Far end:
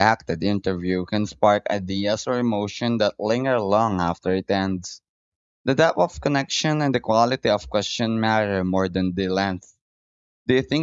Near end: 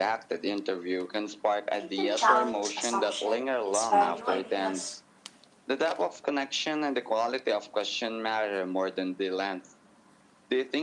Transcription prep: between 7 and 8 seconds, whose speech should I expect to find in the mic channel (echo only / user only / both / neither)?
echo only